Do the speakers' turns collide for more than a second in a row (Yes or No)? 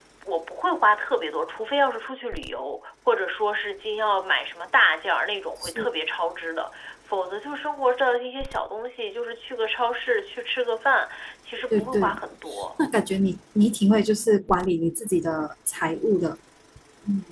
No